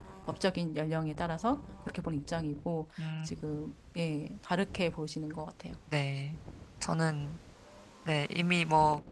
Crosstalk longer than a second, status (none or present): none